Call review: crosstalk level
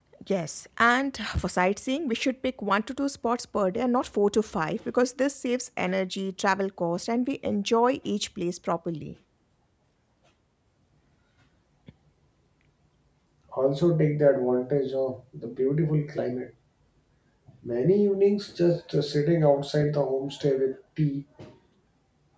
none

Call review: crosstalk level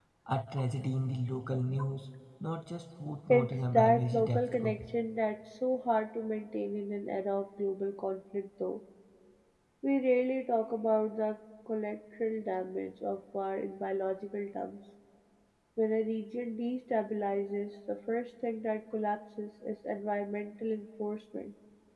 present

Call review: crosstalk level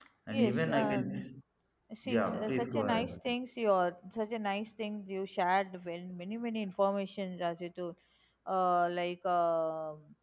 present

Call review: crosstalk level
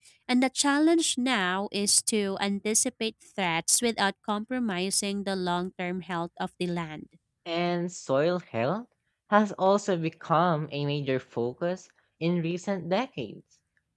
none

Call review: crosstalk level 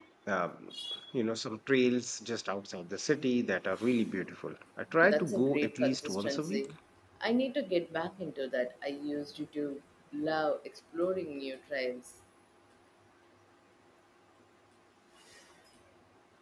present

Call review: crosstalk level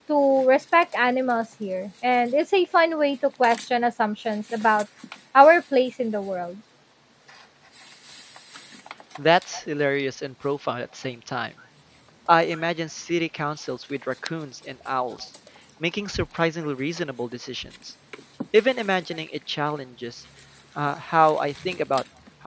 none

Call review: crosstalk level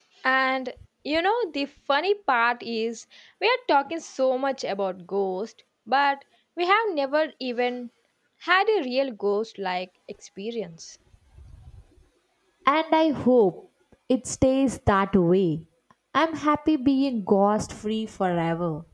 none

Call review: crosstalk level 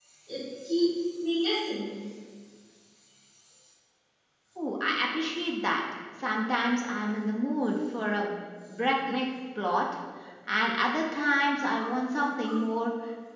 none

